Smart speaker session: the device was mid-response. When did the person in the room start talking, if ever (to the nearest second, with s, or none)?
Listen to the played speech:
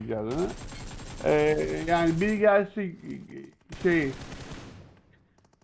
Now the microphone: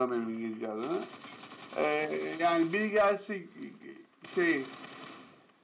none